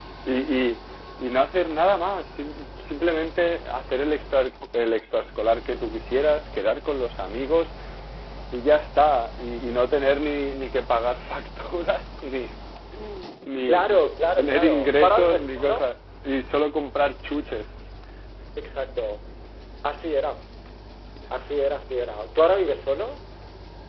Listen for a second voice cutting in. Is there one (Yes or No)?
Yes